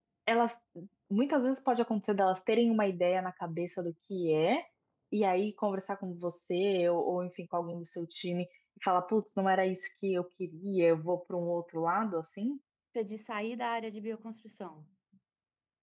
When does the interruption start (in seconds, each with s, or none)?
none